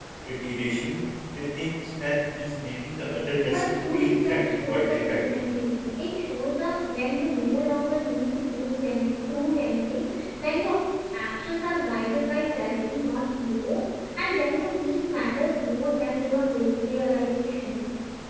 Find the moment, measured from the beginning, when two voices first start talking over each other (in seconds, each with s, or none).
3.4 s